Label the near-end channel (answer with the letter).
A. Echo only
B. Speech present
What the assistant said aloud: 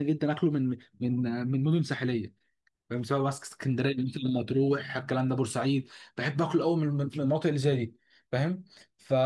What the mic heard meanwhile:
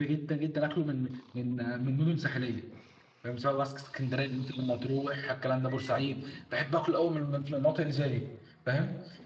B